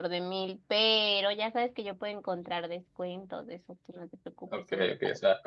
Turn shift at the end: Yes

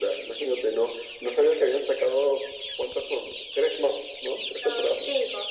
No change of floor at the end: No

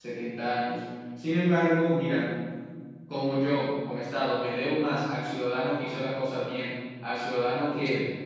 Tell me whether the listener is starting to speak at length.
No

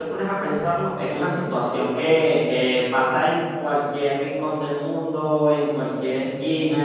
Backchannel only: Yes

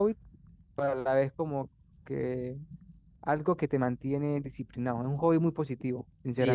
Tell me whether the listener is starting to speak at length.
Yes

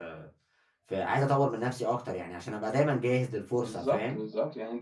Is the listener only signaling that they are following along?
No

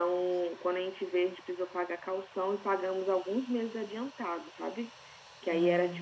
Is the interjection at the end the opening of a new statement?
No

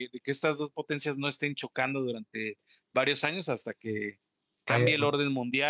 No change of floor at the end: Yes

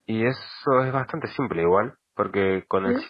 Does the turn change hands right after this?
No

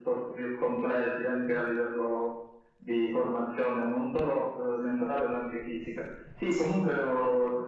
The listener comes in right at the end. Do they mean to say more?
No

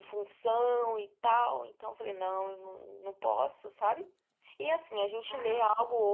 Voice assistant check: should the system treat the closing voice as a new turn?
No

